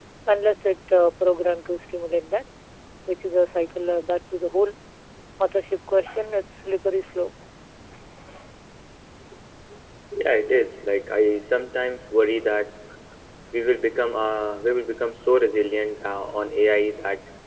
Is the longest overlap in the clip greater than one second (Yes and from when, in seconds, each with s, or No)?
No